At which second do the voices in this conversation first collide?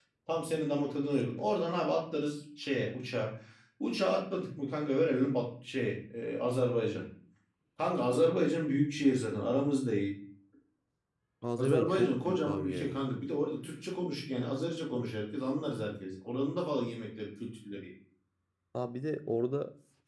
11.6 s

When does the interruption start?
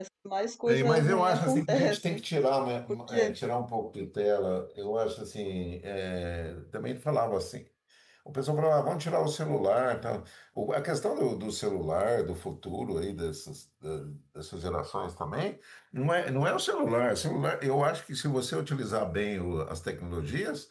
0.7 s

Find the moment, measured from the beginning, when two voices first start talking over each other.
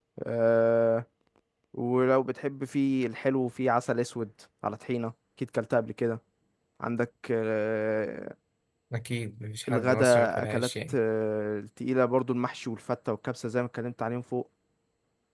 9.7 s

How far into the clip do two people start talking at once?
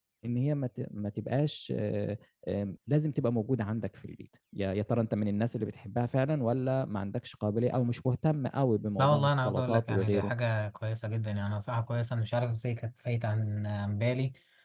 9.0 s

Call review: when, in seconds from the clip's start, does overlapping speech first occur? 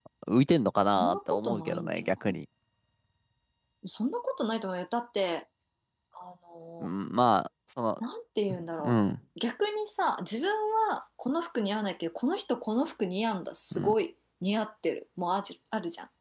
0.8 s

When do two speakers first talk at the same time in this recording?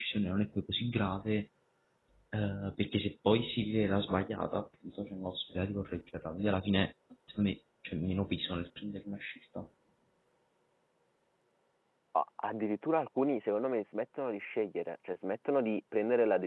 none

